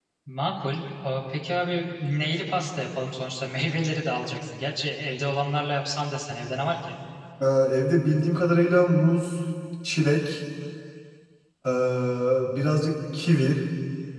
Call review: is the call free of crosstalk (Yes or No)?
Yes